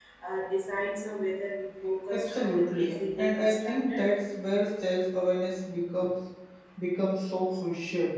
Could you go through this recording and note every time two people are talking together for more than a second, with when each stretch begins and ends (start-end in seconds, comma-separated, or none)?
2.1-4.0